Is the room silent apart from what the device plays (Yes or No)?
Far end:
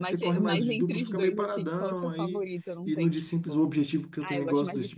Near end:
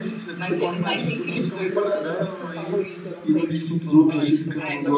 No